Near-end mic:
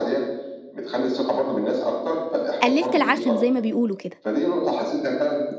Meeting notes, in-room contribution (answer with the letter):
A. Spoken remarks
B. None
A